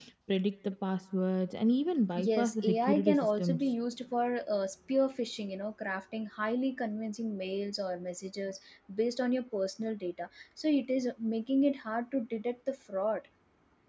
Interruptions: present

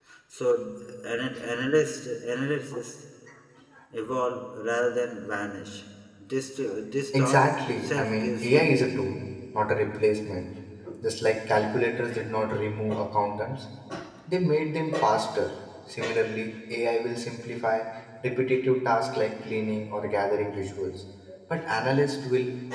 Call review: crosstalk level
present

